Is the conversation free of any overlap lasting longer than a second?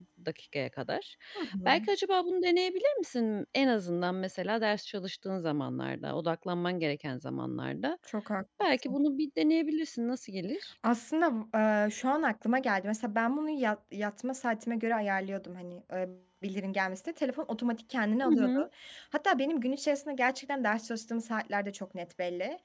Yes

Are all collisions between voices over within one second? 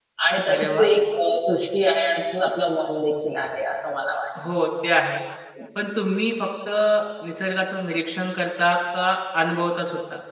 Yes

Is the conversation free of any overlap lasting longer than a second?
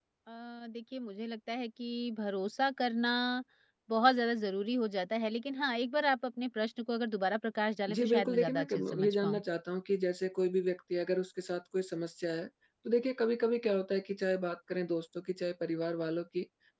No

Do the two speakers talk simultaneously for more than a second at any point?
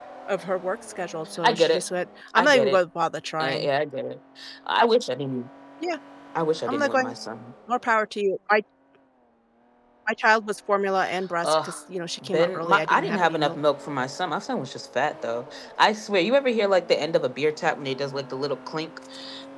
Yes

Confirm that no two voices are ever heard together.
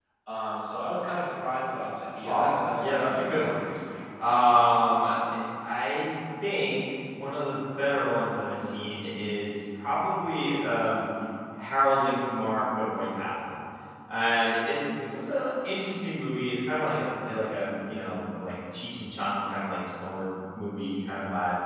No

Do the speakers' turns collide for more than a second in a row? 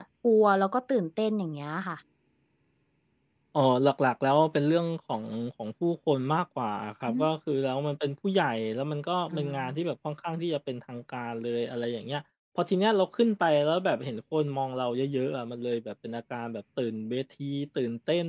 No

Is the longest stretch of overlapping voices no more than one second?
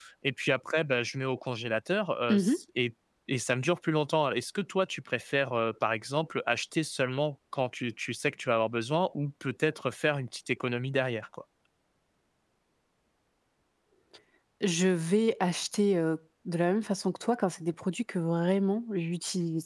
Yes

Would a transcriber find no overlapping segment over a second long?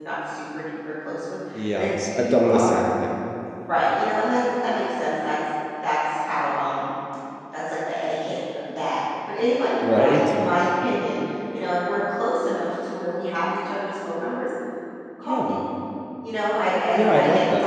No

